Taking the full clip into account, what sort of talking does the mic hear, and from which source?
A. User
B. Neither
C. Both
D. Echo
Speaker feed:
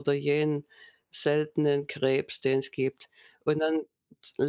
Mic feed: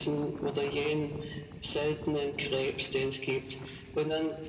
D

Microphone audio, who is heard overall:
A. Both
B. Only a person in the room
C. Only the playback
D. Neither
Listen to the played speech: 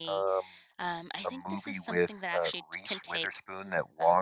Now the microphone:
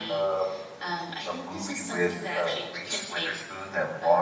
C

